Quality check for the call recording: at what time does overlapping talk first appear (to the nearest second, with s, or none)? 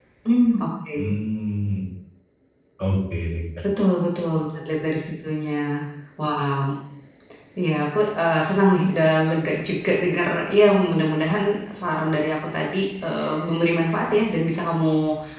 none